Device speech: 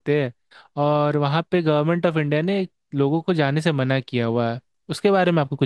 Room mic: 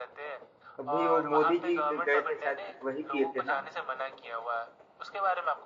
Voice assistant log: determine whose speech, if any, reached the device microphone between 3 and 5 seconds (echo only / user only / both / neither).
both